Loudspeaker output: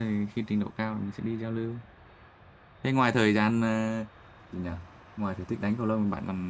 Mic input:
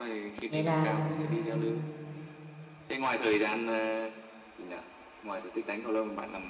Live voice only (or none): vậy là ừm,